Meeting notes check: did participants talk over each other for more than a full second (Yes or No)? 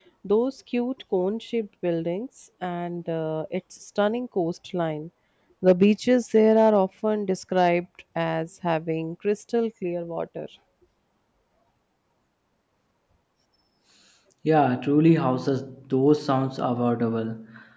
No